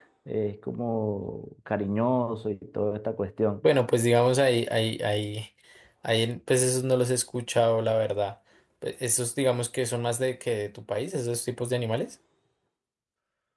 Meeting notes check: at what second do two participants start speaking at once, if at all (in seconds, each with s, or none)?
none